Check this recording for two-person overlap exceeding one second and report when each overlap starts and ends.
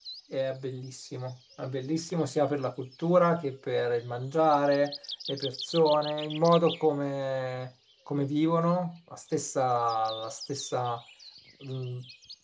none

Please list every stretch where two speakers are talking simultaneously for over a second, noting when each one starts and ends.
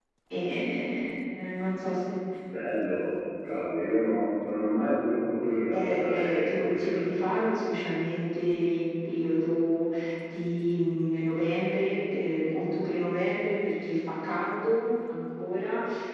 5.7-7.1

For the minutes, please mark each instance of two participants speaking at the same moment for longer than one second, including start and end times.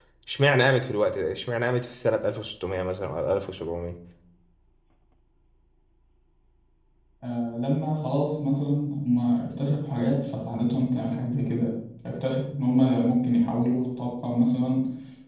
none

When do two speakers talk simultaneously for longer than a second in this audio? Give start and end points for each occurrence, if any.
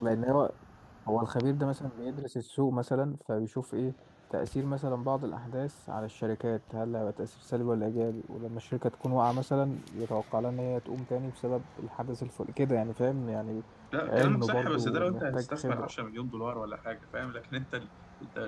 14.1-15.9

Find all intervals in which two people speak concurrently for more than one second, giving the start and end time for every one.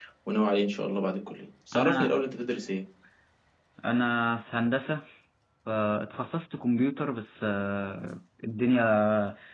none

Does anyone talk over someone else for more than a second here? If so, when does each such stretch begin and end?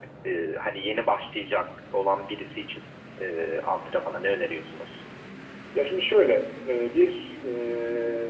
none

